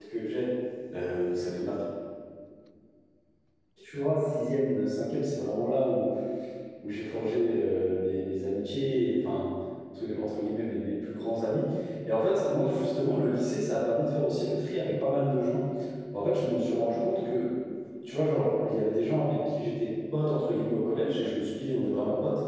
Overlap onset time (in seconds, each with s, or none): none